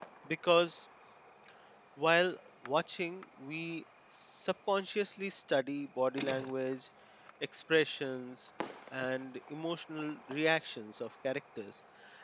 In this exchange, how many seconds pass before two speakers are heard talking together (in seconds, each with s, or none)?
none